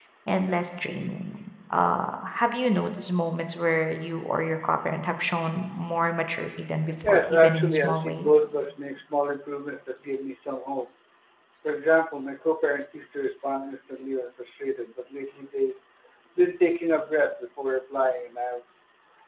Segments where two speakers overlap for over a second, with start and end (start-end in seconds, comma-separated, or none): 7.0-8.5